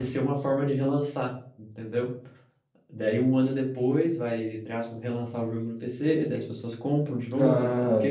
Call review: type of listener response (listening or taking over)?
taking over